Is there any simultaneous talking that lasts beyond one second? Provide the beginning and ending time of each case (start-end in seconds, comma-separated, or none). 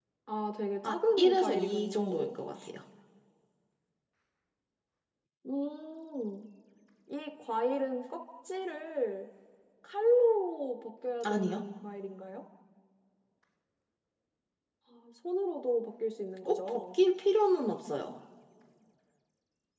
0.8-2.3